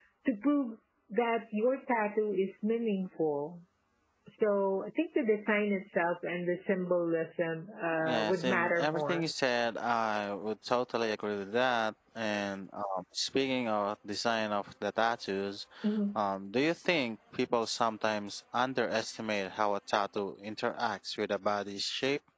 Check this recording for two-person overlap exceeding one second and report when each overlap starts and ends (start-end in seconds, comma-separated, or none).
8.0-9.2